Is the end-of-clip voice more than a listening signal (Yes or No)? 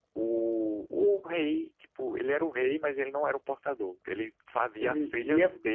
No